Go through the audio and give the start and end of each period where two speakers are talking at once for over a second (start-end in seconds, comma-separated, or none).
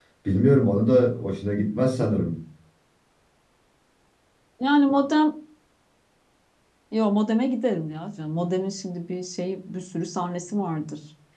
none